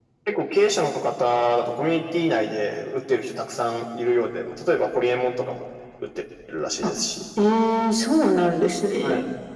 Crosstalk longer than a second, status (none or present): none